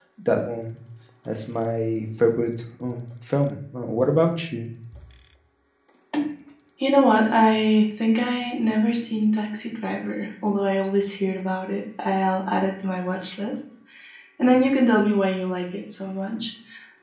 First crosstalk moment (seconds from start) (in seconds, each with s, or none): none